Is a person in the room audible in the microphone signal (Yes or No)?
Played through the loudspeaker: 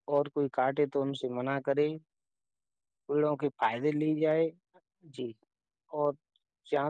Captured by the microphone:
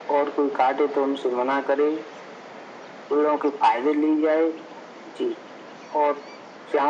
No